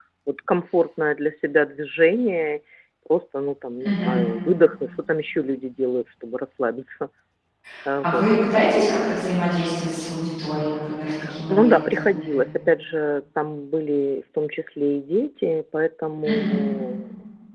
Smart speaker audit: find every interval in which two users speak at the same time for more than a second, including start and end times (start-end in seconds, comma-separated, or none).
none